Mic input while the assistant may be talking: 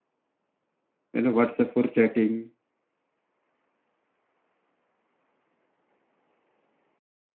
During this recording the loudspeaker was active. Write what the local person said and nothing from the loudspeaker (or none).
You know, WhatsApp for chatting,